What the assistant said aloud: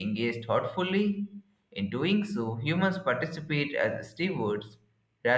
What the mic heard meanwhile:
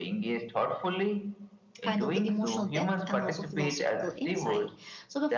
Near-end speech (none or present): present